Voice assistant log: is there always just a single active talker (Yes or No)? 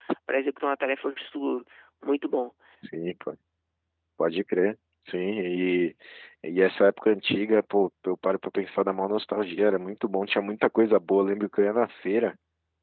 Yes